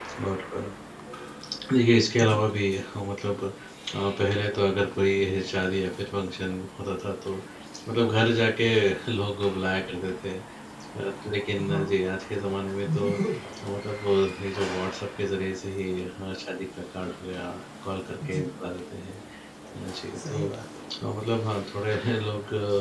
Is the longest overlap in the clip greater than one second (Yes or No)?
No